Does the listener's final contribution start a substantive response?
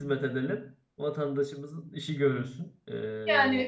Yes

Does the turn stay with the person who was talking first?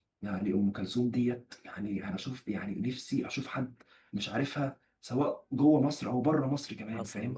No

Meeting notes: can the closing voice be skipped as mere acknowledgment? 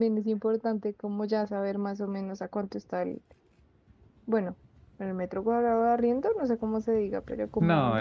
No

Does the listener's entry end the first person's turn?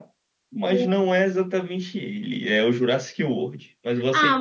Yes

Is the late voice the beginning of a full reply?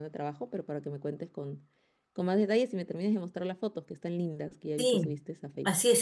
Yes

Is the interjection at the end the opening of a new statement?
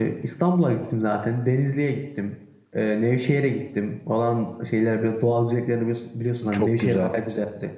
No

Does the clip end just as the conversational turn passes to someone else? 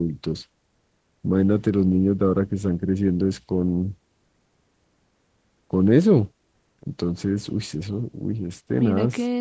Yes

